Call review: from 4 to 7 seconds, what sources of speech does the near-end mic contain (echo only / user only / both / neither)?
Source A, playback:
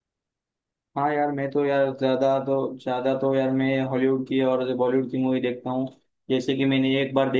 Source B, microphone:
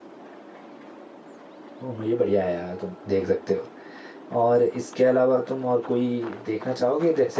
user only